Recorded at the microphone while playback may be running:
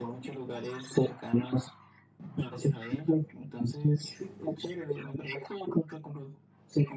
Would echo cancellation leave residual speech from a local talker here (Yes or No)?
No